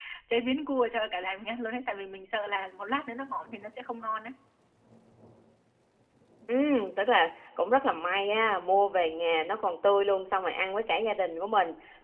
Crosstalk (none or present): none